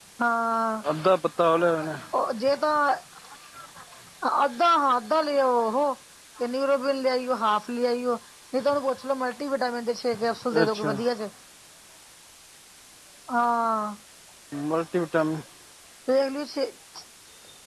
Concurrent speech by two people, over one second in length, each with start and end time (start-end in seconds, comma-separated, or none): none